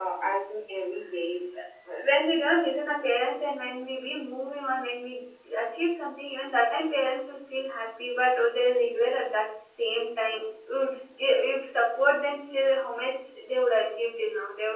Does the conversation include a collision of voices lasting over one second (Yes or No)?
No